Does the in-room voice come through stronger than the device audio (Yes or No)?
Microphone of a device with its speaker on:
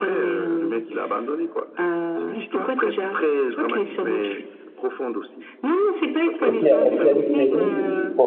Yes